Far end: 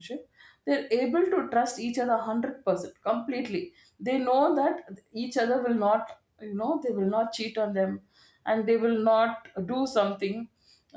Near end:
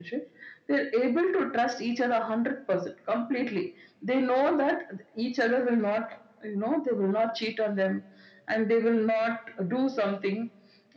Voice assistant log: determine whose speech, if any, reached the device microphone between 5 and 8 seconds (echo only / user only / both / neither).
echo only